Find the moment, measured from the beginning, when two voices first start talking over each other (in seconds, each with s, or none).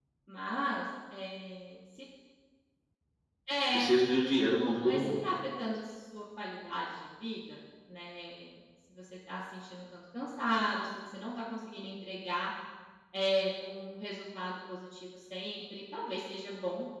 3.7 s